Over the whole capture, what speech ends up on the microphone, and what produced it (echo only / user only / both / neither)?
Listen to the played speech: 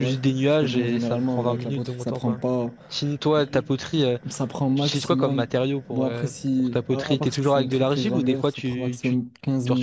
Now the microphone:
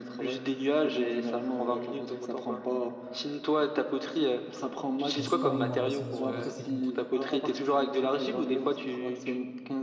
both